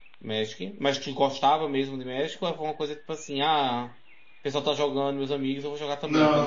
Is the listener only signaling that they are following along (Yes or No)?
No